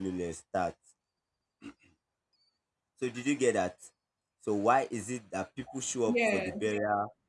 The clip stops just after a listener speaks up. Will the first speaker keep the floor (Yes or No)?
Yes